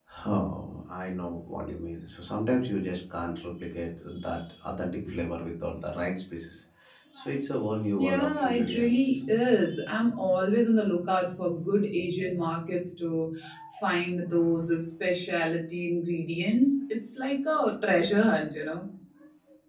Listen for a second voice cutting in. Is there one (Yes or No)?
Yes